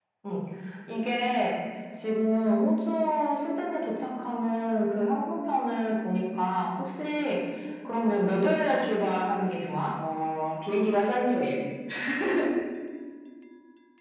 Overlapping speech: No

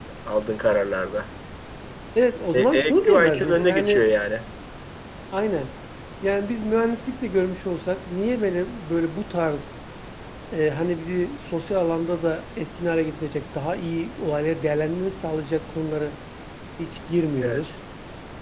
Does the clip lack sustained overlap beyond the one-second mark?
No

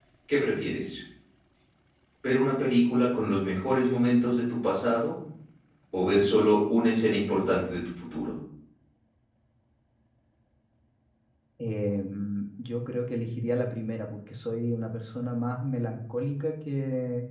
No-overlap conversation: Yes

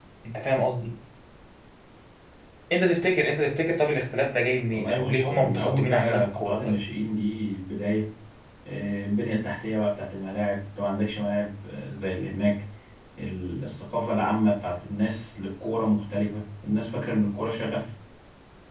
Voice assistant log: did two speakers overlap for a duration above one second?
Yes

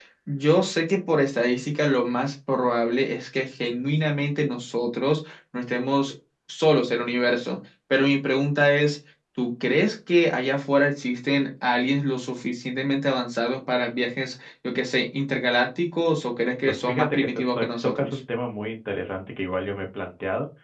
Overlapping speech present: Yes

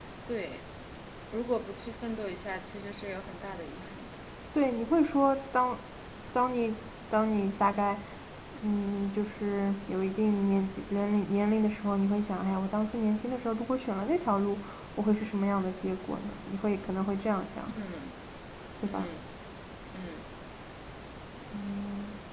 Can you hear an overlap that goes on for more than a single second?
No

